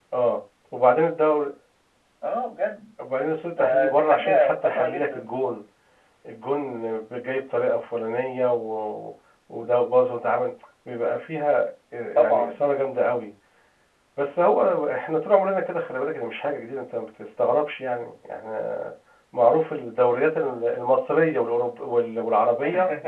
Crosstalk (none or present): present